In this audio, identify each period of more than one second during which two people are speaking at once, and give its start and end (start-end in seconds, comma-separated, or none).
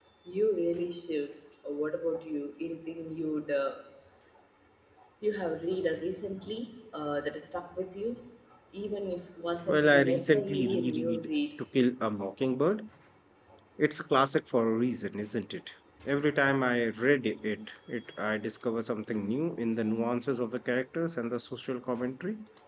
9.7-11.2